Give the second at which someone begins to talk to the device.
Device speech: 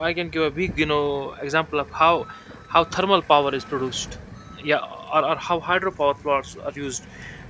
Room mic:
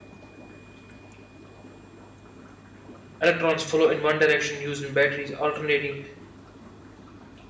3 s

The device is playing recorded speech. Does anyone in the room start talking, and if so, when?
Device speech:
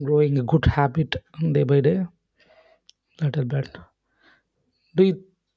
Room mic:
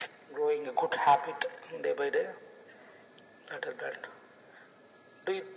none

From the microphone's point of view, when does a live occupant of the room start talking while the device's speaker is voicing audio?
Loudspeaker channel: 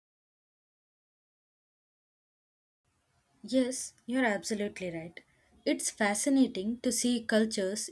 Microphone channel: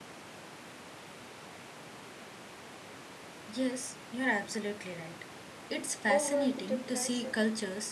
6 s

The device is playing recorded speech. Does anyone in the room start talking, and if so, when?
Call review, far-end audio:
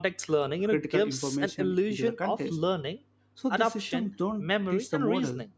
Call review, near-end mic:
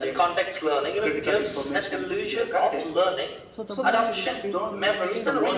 3 s

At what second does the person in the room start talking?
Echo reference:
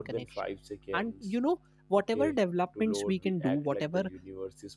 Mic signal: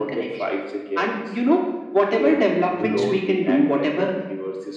3 s

